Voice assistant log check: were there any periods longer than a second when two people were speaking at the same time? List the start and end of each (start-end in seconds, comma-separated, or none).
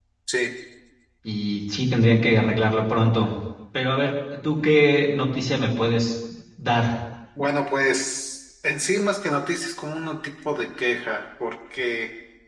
none